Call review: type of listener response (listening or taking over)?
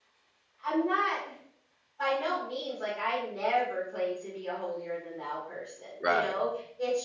listening